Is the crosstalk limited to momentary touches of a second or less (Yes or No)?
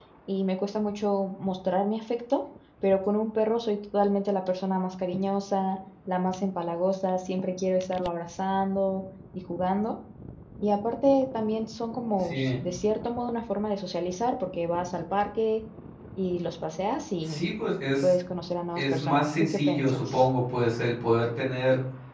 No